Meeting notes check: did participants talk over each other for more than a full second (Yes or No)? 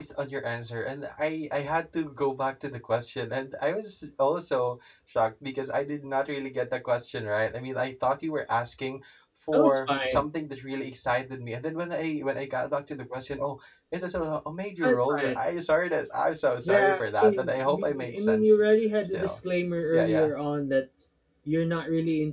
Yes